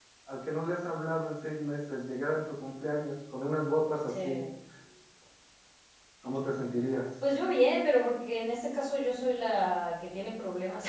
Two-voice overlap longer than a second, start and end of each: none

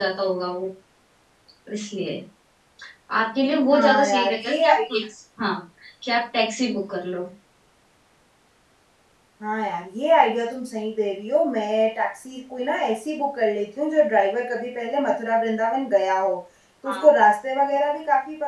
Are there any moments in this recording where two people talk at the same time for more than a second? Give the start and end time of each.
3.7-5.0

